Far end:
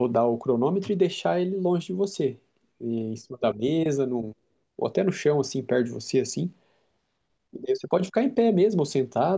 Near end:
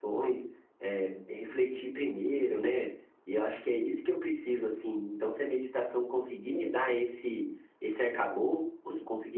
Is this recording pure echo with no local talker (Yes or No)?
No